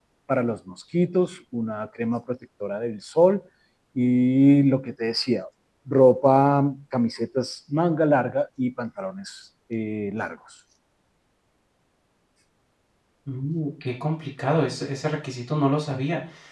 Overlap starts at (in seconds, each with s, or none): none